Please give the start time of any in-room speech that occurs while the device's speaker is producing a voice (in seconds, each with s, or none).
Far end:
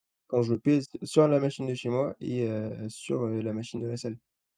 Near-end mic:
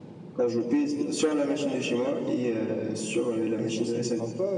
3.6 s